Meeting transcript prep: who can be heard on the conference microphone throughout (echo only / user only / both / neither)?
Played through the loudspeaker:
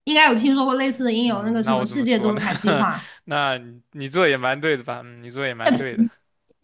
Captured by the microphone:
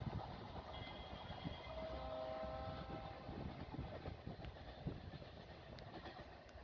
neither